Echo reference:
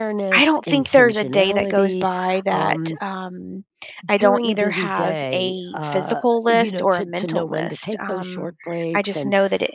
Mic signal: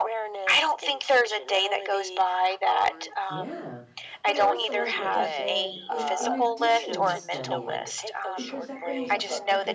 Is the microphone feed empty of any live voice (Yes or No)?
No